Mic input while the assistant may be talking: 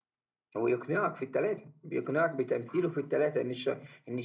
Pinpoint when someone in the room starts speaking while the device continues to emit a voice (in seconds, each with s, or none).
0.6 s